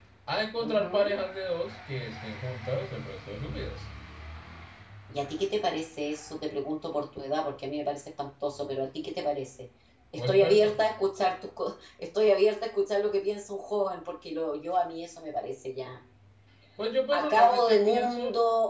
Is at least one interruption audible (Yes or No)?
Yes